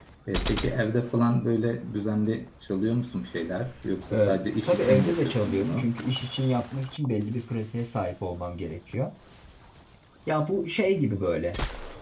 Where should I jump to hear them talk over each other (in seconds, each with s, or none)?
4.1 s